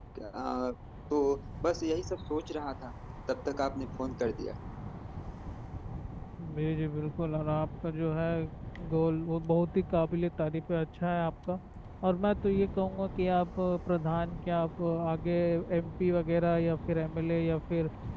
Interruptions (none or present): none